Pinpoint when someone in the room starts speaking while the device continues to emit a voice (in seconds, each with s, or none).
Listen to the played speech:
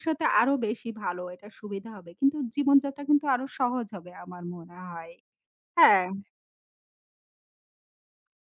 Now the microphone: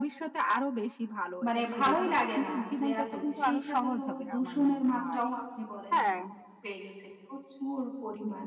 1.4 s